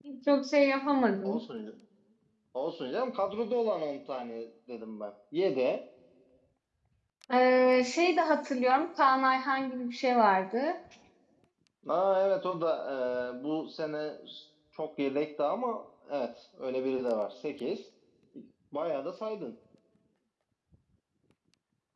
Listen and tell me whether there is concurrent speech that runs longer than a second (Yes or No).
No